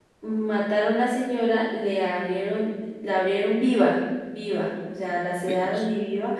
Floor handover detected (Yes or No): No